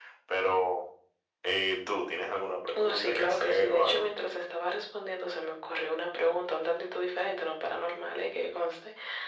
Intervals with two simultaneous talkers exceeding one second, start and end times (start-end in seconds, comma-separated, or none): 2.8-4.1